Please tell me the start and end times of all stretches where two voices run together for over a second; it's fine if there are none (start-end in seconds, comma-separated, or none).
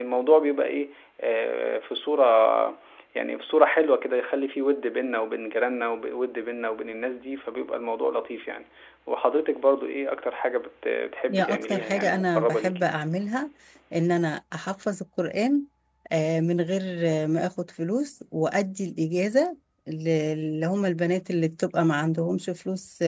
11.3-12.9